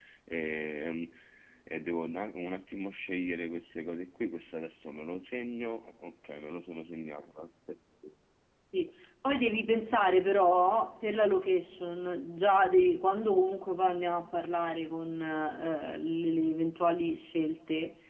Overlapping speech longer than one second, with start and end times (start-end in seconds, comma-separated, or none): none